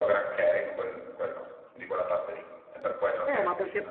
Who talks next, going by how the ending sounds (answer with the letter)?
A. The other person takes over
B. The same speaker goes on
A